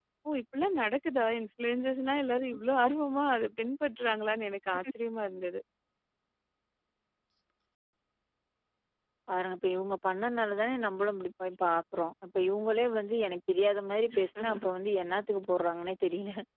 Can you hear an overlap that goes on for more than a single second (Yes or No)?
No